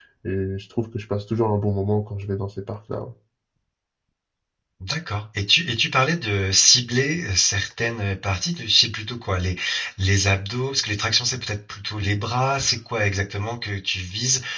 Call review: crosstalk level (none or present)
none